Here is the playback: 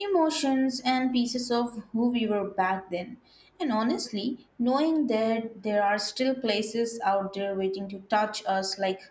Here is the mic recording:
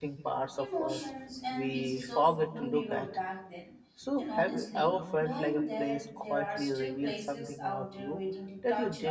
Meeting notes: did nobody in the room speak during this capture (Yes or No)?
No